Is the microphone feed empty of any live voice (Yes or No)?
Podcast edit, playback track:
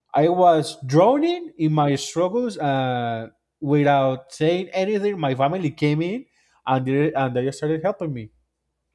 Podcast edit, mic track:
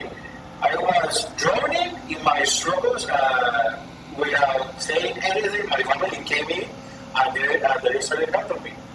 Yes